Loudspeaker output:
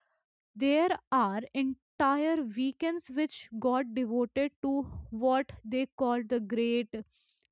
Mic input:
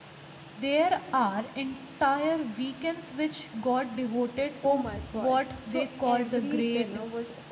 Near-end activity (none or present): present